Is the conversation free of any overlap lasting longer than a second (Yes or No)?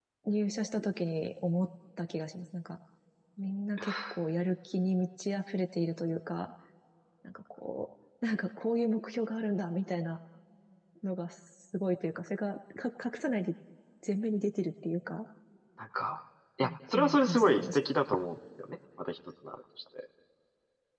No